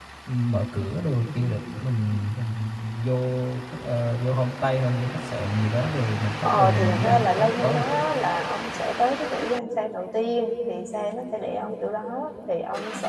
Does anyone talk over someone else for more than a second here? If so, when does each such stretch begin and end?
6.4-7.8

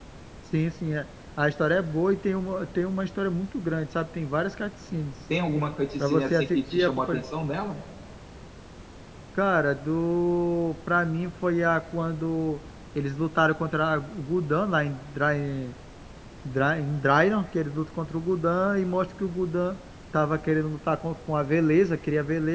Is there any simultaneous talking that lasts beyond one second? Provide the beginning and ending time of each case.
6.0-7.2

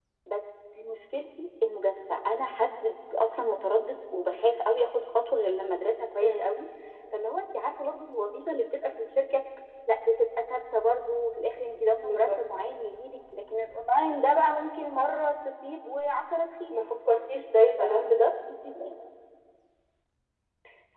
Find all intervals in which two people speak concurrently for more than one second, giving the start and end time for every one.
none

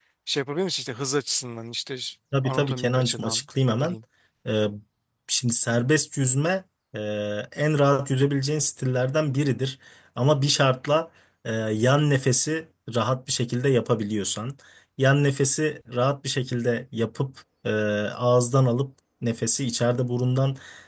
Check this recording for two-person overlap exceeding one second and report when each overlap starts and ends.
2.4-4.0

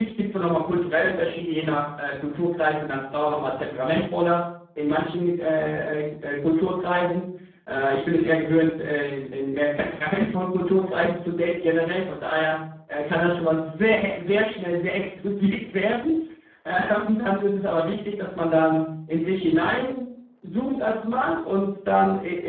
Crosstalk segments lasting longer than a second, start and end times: none

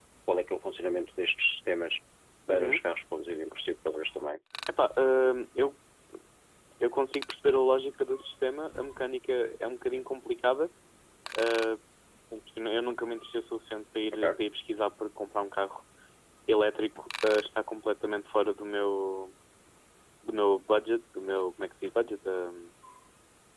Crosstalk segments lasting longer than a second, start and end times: none

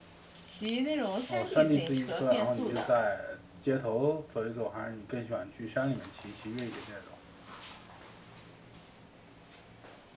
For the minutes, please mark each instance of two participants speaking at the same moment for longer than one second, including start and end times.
1.3-2.9

